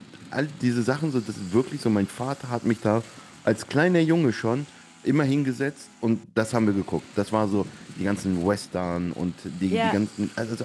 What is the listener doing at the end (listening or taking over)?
listening